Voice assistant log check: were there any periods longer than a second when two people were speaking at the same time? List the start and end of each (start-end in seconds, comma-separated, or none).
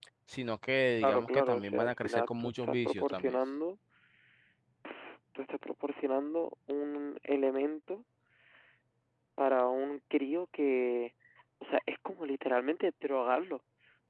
1.0-3.4